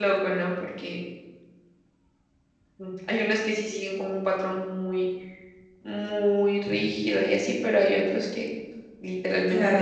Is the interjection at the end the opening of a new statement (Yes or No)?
No